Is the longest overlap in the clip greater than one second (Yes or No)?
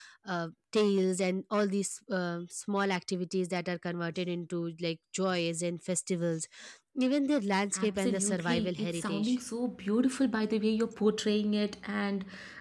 Yes